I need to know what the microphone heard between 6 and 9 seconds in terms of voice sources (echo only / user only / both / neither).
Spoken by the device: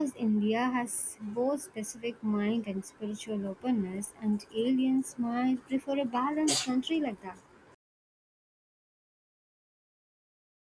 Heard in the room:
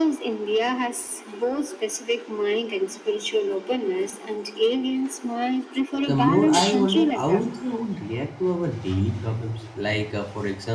both